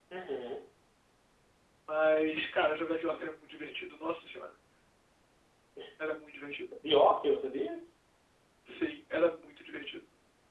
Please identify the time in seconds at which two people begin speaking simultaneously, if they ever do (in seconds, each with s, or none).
none